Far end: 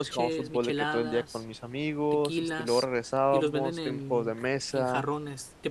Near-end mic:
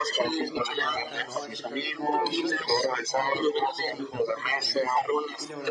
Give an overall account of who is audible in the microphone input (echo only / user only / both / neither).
both